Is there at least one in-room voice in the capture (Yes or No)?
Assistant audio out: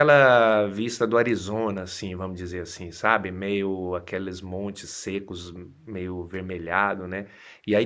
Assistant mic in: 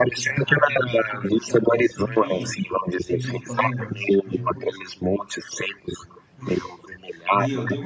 Yes